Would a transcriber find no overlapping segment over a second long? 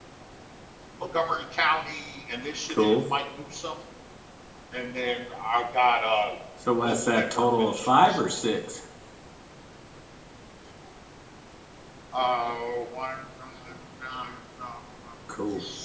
No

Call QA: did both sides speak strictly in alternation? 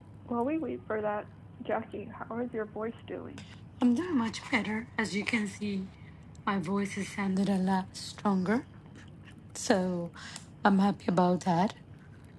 Yes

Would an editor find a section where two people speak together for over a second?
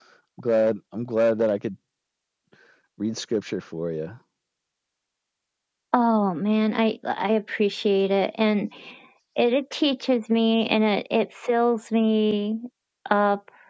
No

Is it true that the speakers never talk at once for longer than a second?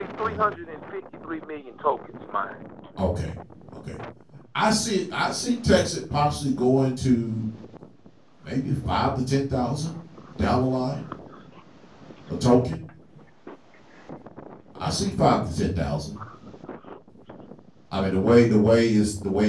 Yes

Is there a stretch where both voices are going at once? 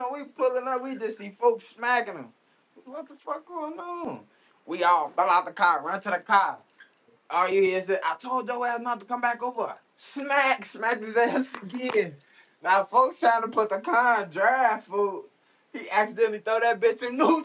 No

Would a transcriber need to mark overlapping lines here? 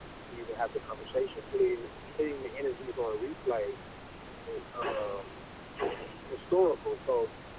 No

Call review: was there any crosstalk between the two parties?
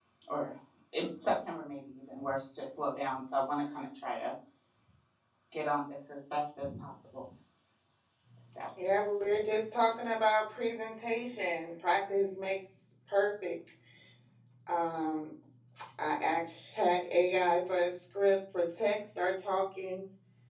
No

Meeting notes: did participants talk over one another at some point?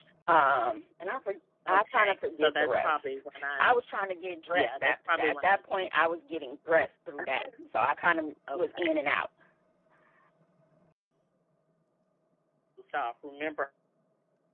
Yes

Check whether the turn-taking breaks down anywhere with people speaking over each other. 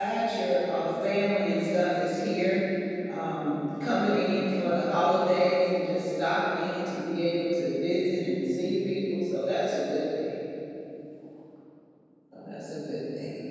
No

